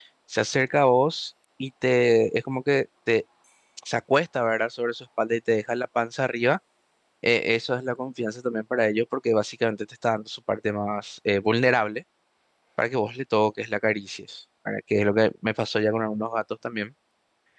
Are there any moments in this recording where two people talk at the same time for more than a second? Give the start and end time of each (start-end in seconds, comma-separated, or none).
none